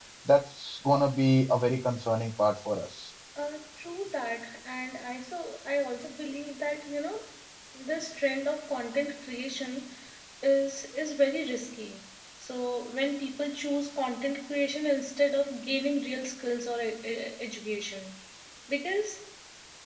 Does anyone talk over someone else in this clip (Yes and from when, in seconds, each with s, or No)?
No